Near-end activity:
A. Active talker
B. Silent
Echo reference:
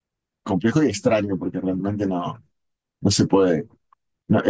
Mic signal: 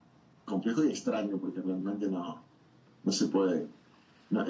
B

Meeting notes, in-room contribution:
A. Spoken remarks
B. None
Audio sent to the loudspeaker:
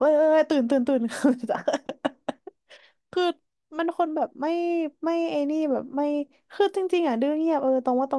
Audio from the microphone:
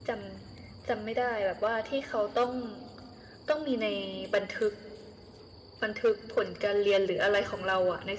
A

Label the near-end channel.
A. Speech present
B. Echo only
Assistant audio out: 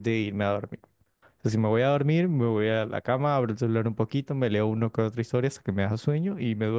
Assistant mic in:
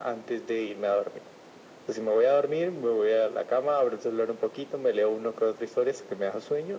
B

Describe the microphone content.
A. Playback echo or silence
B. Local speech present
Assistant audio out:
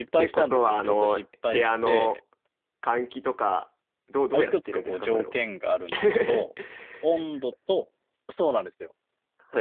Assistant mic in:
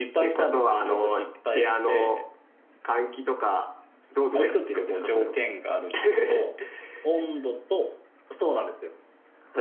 A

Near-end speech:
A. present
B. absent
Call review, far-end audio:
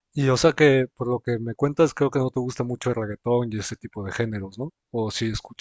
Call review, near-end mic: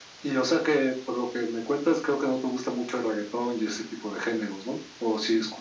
B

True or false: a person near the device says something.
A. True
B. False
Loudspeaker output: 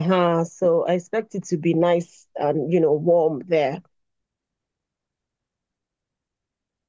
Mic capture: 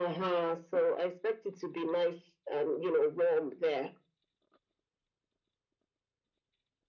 B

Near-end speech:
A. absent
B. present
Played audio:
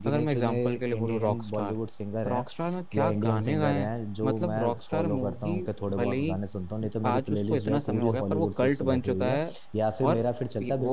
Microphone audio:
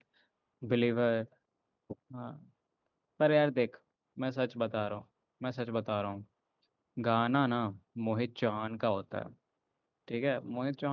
B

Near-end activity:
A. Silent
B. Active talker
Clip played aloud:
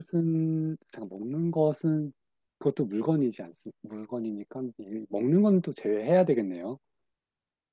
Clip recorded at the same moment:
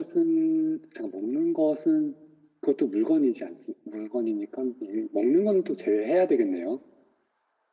A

